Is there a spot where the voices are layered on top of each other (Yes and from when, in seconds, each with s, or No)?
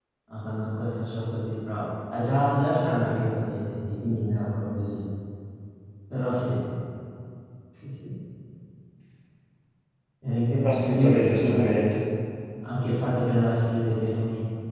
Yes, from 10.6 s